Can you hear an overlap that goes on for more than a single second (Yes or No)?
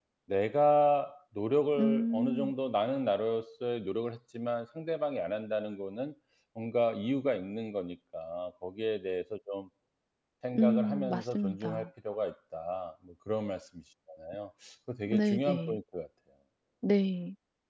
Yes